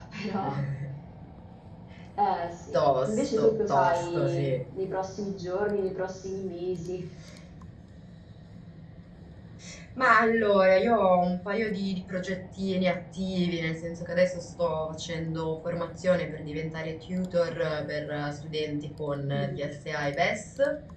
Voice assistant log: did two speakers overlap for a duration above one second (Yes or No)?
Yes